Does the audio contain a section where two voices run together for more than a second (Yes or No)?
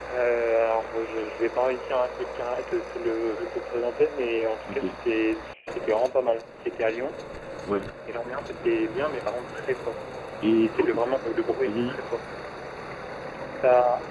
No